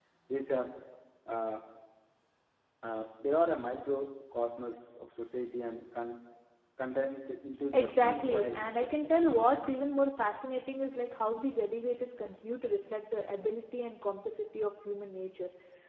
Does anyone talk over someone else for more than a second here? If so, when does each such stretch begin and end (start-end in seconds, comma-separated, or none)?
7.7-9.0